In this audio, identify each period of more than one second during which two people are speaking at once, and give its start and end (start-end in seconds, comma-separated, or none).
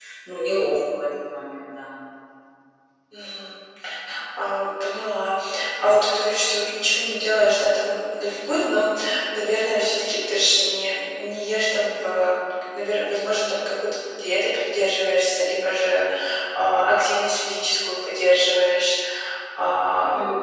none